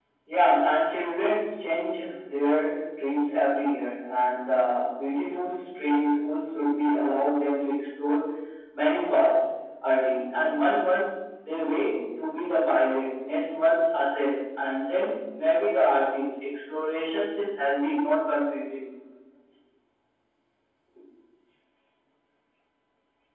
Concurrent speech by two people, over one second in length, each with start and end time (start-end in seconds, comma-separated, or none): none